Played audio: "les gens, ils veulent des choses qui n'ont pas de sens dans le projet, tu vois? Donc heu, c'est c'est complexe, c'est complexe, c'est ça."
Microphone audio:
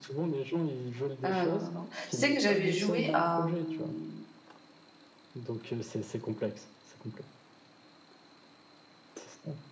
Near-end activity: present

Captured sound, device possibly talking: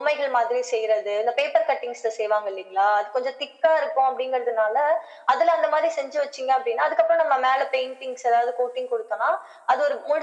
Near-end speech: none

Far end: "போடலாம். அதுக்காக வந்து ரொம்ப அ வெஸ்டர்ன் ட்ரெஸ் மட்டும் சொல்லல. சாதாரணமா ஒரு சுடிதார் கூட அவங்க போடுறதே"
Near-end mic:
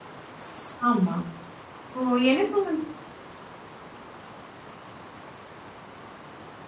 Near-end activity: present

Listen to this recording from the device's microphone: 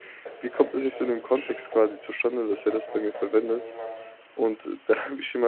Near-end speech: present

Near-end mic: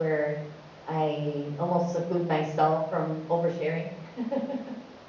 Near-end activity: none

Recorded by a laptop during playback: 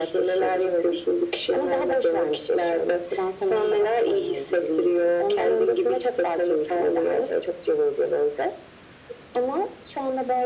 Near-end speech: none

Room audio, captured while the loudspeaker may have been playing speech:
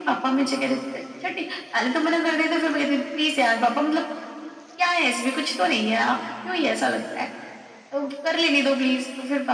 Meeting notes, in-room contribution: none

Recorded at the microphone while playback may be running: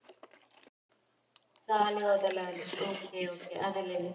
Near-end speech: none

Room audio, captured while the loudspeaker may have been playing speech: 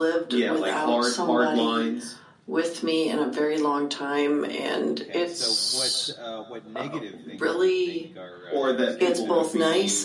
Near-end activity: present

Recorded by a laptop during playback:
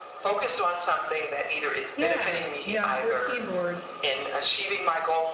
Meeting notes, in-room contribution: present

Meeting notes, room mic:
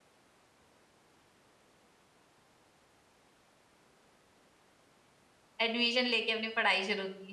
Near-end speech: present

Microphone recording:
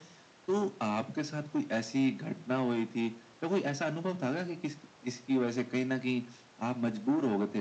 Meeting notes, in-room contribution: none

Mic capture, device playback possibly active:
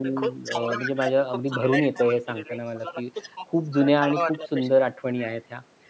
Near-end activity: present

